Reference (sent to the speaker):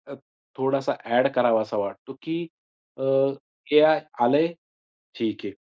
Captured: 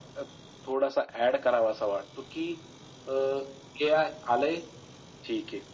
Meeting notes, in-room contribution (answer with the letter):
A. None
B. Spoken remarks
A